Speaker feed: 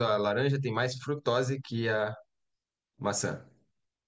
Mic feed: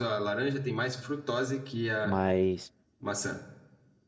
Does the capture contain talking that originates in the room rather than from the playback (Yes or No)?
Yes